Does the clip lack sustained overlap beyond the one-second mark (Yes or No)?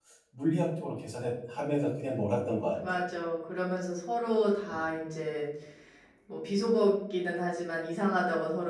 Yes